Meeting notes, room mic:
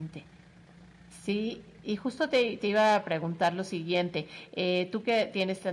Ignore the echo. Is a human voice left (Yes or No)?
Yes